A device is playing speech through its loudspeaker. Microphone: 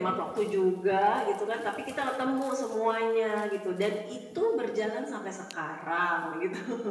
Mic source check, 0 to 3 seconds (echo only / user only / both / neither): echo only